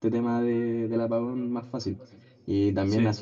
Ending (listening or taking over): listening